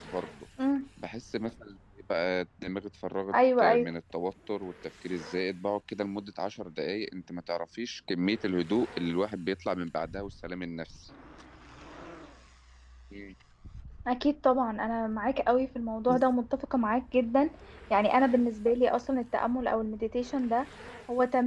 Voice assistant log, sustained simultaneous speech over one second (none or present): none